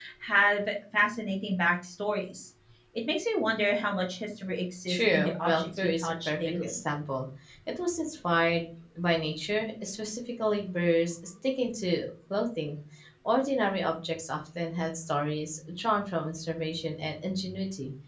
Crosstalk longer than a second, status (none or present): present